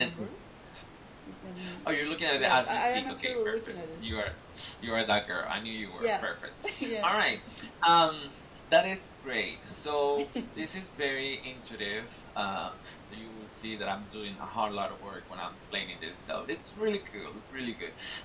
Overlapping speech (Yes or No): Yes